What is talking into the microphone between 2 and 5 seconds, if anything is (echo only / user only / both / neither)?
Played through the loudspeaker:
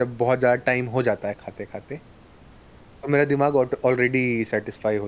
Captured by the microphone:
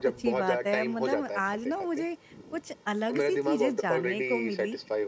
both